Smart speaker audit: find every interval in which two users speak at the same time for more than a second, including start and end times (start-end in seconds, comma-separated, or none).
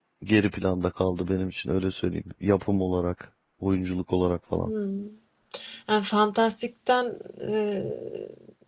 none